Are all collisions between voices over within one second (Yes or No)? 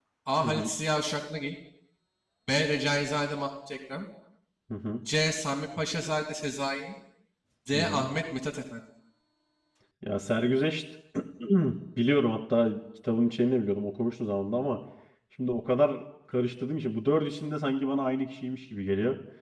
Yes